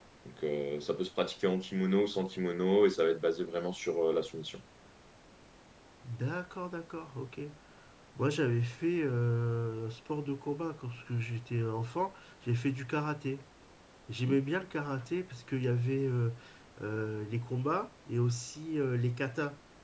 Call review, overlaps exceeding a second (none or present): none